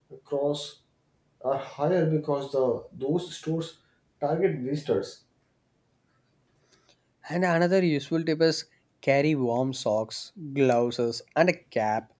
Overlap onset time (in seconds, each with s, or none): none